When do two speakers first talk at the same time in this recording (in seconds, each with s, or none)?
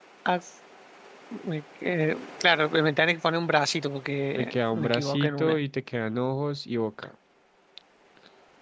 4.4 s